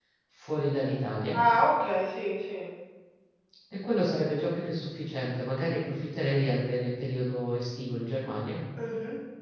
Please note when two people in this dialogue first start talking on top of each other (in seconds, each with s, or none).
none